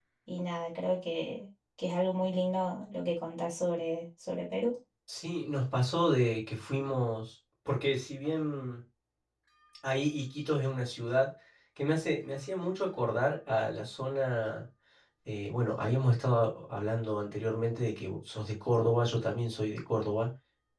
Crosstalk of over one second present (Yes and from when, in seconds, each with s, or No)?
No